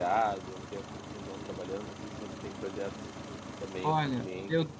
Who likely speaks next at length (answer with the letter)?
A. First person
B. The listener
B